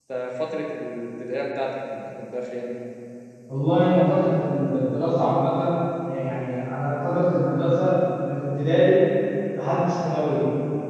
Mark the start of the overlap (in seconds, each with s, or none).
none